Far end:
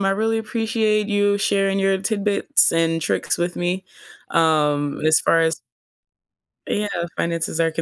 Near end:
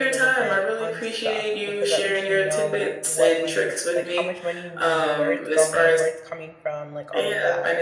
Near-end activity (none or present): present